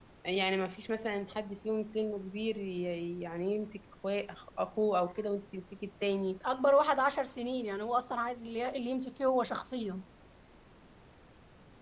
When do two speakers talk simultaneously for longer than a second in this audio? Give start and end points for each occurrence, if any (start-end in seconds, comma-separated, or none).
none